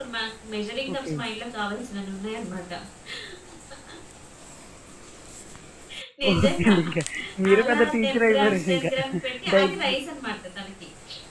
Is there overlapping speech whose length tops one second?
Yes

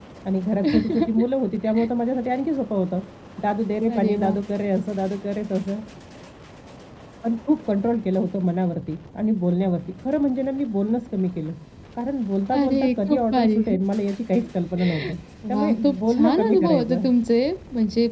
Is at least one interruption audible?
Yes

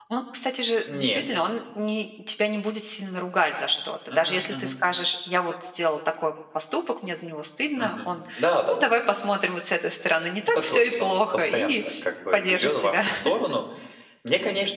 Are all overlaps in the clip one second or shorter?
No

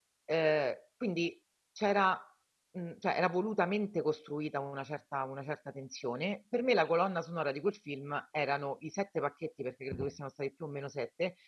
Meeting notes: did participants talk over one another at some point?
No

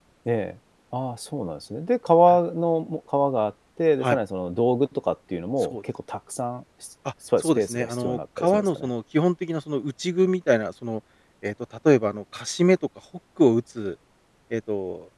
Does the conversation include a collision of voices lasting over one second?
Yes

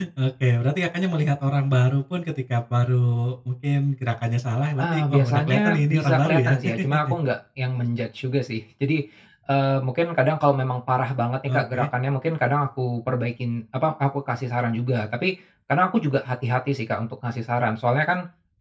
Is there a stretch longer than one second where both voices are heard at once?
Yes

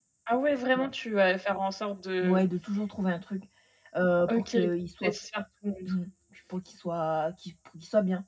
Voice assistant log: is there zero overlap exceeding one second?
Yes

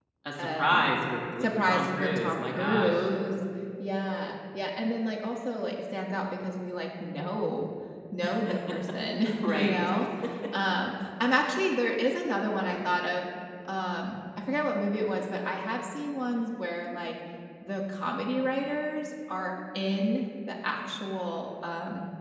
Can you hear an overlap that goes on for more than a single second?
Yes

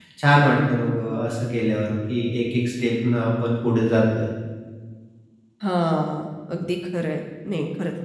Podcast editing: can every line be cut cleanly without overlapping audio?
Yes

